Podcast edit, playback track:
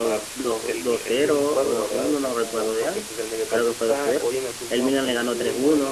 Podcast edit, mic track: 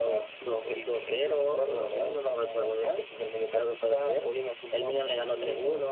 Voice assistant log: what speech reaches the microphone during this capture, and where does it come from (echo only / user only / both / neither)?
echo only